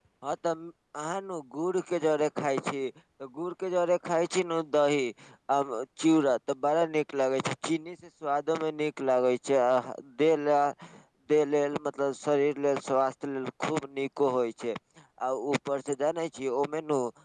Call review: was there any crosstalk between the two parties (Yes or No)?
No